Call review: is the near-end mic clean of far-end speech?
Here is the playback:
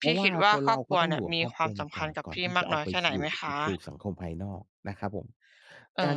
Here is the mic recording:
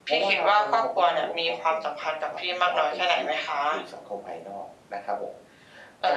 No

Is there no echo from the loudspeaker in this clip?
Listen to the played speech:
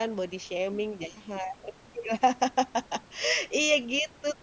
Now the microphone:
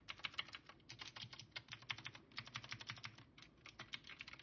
Yes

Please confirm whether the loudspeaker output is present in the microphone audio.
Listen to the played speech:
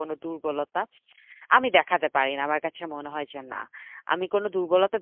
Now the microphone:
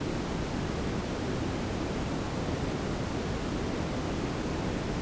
No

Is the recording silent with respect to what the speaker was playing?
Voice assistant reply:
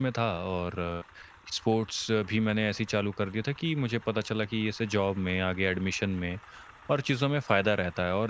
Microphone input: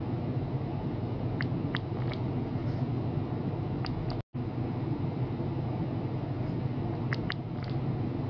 Yes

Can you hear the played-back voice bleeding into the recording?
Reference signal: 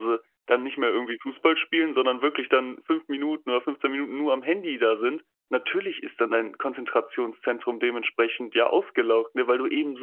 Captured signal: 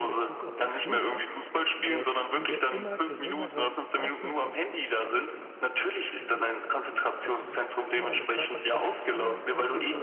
Yes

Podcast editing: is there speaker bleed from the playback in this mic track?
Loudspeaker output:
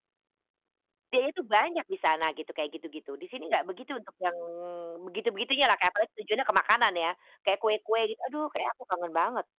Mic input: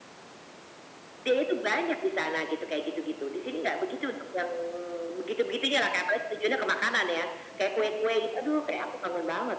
Yes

